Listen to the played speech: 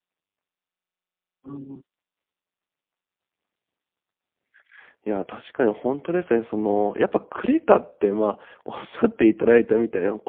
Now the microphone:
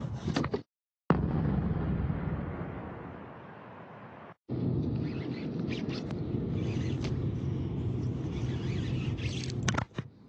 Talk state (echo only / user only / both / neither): neither